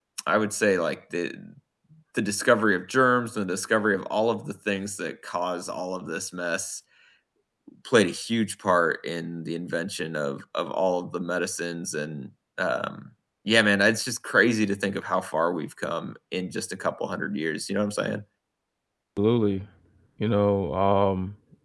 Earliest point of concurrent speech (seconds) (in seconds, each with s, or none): none